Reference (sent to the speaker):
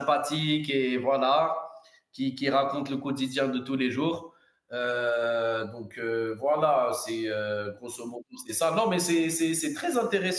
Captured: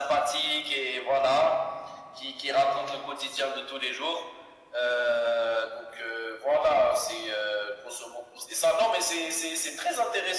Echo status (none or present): present